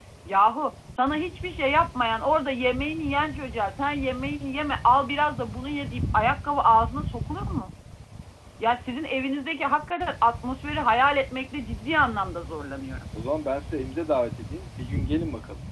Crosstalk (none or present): none